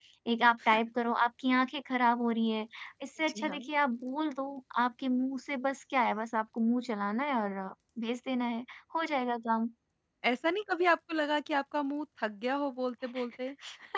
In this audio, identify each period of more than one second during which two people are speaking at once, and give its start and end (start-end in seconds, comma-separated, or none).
none